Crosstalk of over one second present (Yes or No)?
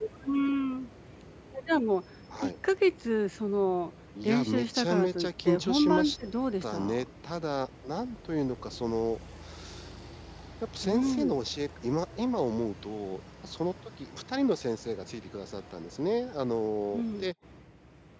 Yes